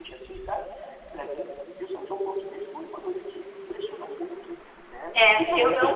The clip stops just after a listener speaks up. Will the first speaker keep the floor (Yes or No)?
No